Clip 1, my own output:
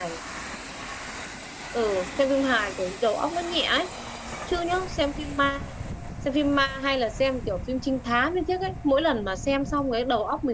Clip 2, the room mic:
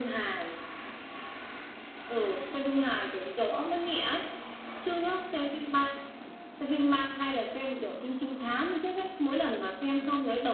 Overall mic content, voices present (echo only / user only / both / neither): echo only